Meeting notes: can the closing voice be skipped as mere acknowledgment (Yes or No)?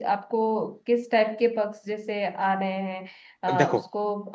Yes